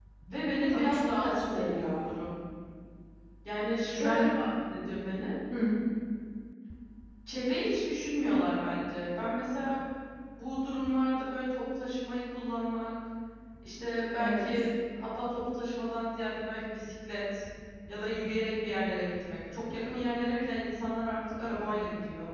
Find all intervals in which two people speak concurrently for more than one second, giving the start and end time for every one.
0.7-2.1

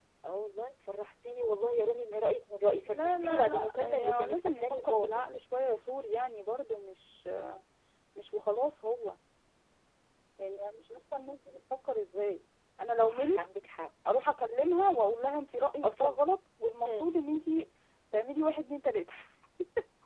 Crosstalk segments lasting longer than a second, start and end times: 2.9-5.2

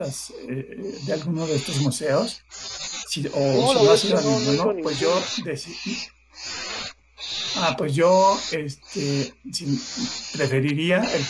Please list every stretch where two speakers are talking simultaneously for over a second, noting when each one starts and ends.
3.5-5.2

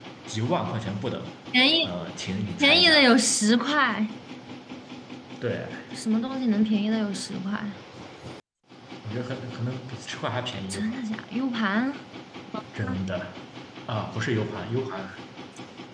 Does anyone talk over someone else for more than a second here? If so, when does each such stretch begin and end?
none

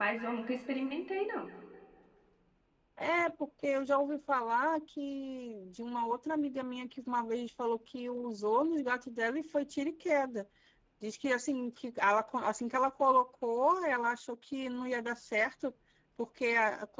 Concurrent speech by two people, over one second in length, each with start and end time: none

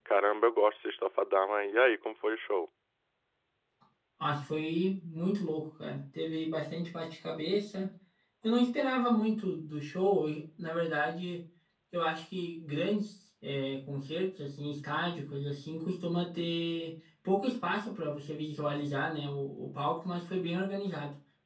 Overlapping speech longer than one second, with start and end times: none

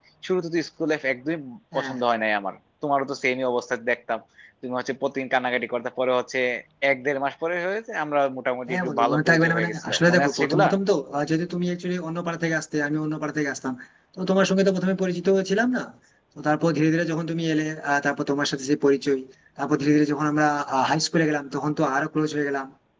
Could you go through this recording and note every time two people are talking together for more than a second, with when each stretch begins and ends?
8.7-10.7

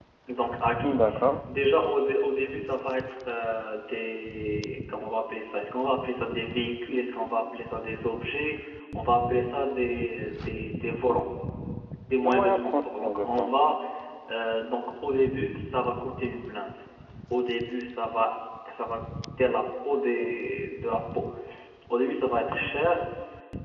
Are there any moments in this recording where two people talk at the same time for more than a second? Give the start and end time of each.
12.1-13.6

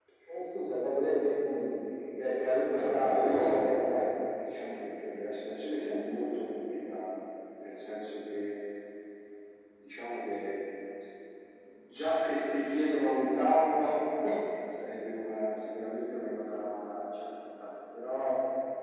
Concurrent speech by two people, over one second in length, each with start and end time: 2.7-4.0

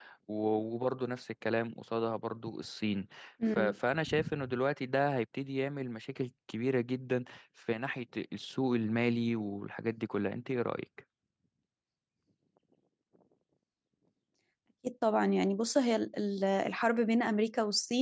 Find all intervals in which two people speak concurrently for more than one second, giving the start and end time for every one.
none

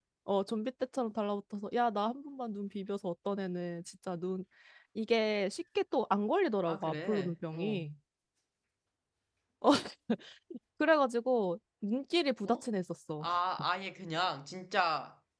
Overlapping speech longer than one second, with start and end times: 6.7-7.9

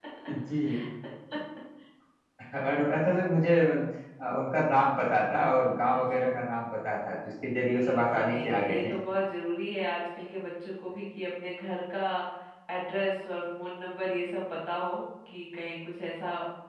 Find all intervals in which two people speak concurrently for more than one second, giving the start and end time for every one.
7.7-8.9

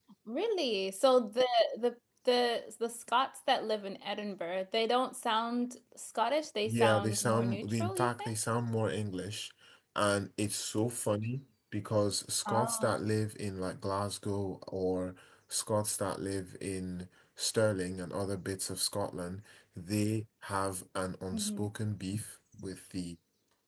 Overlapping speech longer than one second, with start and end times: 6.7-8.3

